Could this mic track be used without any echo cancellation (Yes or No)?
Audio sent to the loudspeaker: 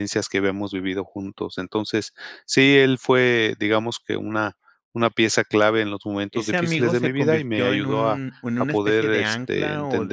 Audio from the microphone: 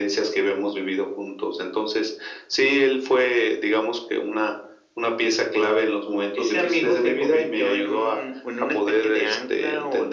No